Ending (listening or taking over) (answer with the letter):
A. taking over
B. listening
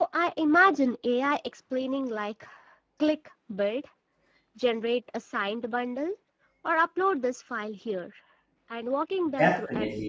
A